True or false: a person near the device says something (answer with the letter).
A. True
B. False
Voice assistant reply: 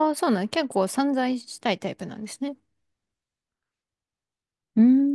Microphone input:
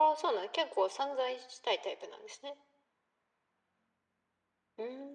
B